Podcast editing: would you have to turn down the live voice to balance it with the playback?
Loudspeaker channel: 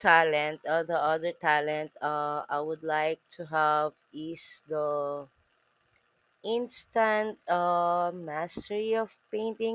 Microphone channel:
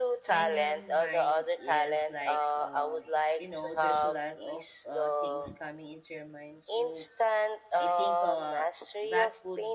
No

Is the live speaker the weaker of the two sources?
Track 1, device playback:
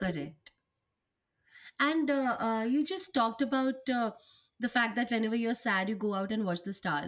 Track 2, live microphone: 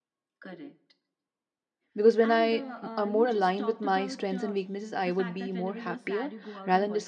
No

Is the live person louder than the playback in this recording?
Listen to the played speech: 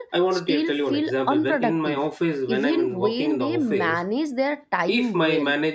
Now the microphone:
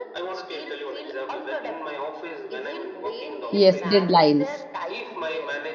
Yes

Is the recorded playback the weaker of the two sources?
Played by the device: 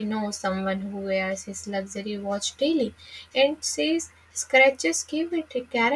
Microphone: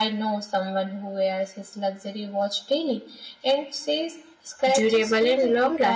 Yes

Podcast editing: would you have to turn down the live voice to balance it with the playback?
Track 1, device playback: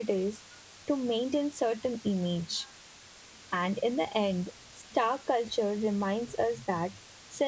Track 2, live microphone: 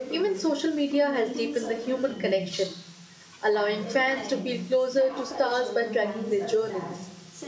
Yes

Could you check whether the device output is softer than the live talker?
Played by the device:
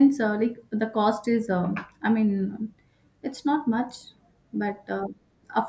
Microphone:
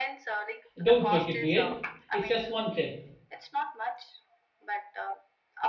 Yes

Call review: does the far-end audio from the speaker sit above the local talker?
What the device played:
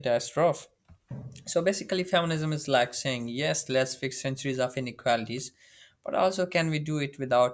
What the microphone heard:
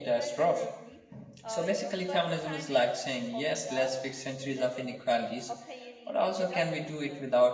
Yes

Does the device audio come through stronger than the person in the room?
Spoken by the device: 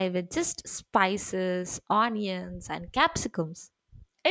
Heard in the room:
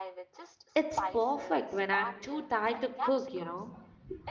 No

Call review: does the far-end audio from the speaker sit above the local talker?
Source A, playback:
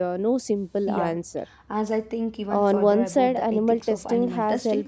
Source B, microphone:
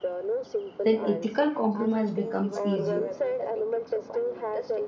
No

